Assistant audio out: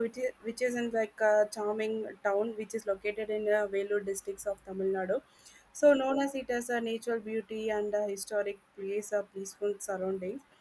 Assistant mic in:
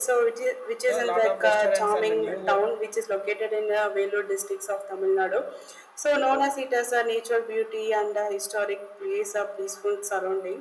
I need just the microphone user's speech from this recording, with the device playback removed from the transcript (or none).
so lot of restaurants and new